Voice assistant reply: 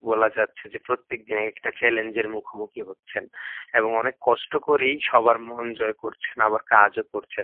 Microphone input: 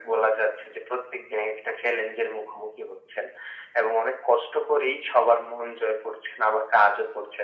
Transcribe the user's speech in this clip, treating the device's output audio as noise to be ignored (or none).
none